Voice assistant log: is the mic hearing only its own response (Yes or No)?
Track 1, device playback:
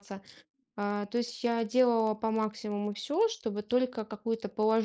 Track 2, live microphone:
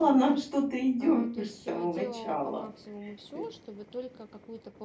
No